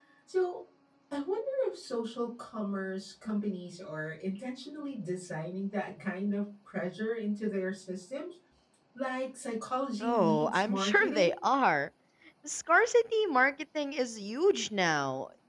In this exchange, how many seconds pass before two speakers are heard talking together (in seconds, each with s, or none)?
10.0 s